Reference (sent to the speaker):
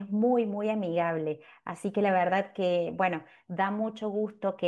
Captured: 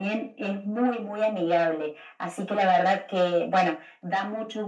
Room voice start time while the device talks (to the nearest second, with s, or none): none